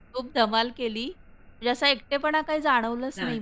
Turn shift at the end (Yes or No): No